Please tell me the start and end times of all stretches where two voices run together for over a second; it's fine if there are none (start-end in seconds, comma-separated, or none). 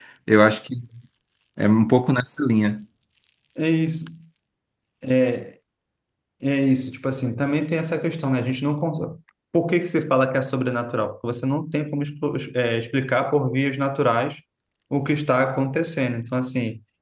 none